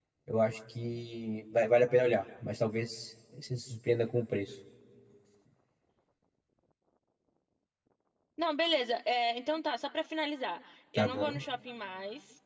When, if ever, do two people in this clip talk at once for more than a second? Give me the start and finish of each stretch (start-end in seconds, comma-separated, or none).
none